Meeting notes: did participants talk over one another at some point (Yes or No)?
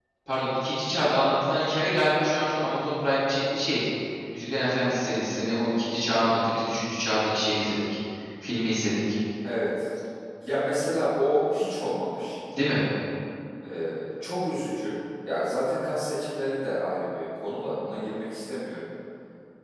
No